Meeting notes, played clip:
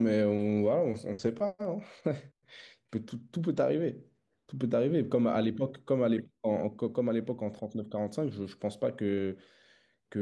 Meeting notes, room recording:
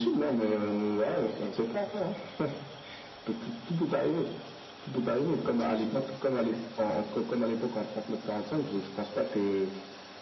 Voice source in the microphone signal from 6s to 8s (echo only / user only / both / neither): echo only